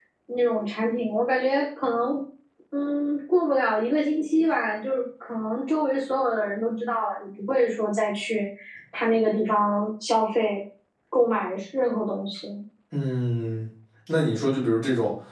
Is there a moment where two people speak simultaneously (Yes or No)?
No